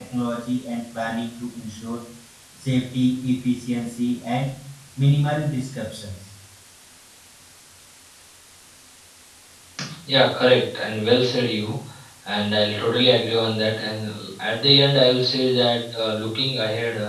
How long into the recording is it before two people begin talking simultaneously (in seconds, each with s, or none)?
none